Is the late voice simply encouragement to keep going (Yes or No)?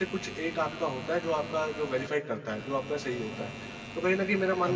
No